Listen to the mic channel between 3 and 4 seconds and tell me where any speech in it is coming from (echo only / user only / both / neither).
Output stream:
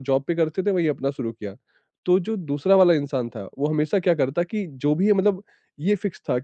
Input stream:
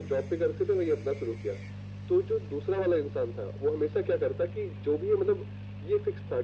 echo only